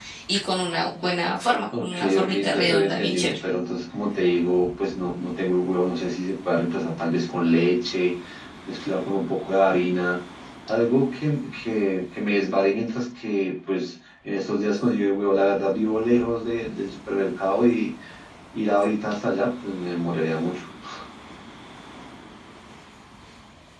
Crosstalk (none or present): present